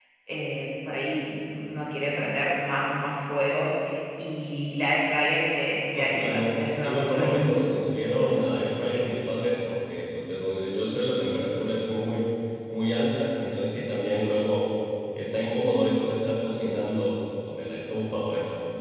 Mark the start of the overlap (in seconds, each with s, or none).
5.9 s